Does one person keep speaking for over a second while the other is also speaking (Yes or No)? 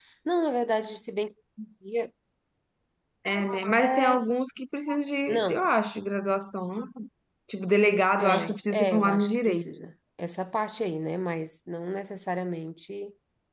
Yes